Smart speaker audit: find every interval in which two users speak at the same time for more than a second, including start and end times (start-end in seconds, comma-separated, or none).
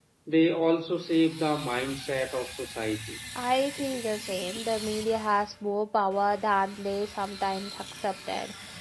none